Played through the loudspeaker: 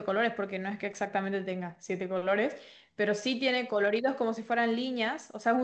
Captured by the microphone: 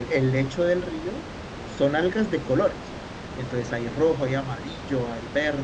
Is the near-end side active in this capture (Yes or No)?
Yes